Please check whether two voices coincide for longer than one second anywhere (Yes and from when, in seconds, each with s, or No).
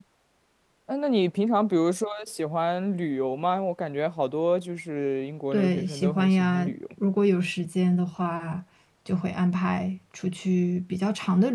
Yes, from 5.5 s